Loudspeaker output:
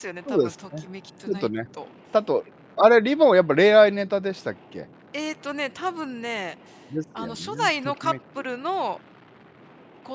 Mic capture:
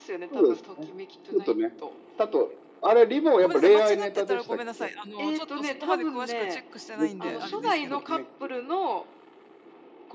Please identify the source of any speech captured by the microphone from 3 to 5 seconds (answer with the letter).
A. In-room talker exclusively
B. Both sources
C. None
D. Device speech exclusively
B